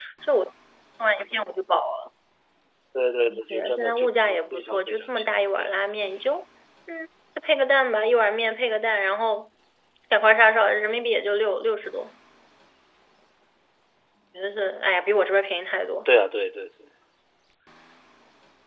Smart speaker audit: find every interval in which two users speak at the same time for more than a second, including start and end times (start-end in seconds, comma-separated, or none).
3.3-5.7